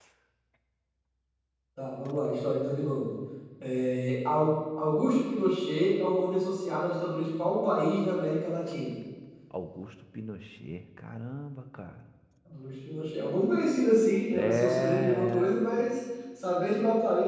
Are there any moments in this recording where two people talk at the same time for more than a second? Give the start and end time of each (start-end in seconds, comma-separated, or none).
14.3-15.6